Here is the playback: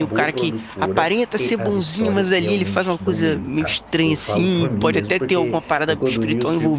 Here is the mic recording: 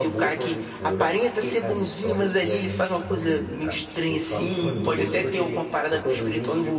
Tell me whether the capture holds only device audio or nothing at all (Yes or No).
Yes